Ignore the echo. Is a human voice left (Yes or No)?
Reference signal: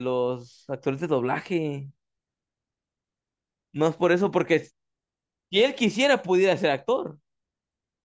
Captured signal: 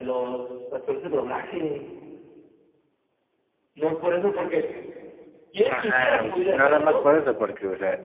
Yes